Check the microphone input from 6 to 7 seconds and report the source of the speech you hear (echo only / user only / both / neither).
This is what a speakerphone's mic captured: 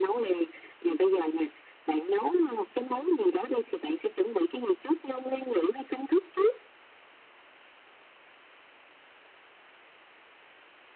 echo only